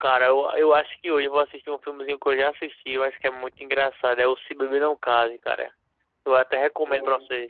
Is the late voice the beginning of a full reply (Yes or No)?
No